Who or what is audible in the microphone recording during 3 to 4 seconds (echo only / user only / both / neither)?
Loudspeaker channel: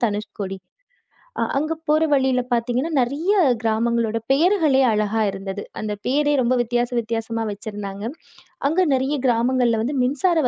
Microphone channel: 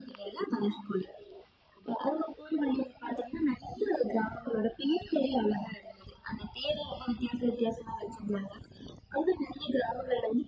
echo only